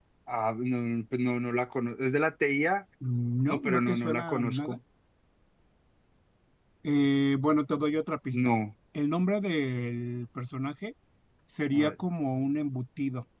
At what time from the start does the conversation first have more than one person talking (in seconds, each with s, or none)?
3.5 s